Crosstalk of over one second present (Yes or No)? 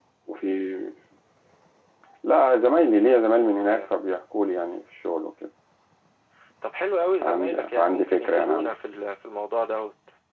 Yes